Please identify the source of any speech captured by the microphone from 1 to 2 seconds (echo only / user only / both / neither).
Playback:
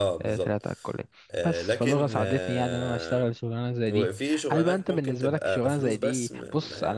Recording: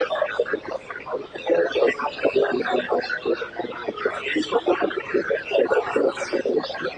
echo only